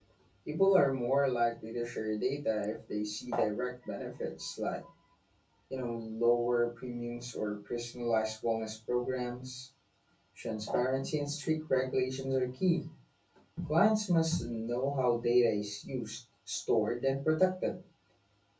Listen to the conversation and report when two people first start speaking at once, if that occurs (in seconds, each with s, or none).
none